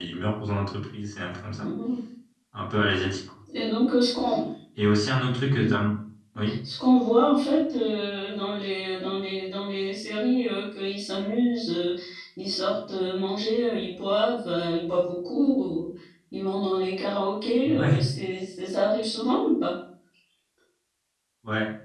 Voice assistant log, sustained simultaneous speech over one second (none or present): none